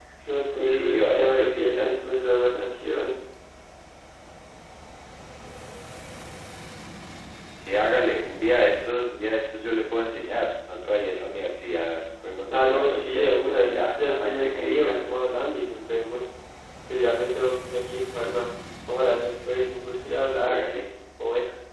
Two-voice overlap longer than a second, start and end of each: 0.6-1.9, 12.5-15.0

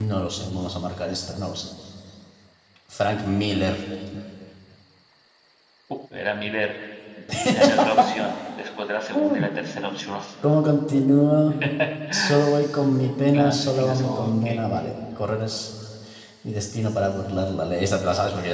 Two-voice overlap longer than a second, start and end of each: 13.3-14.6

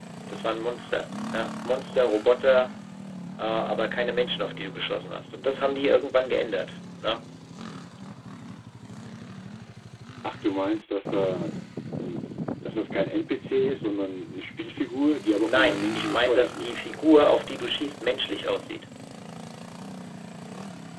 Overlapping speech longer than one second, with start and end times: 15.4-16.7

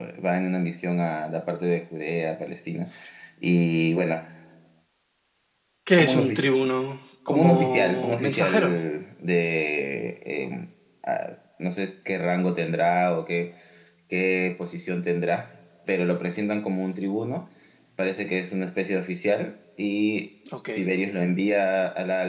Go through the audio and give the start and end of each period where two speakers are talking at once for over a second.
7.3-8.8

